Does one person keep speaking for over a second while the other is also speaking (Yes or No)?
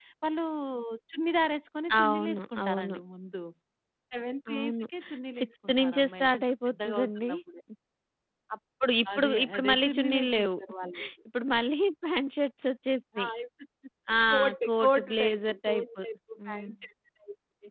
Yes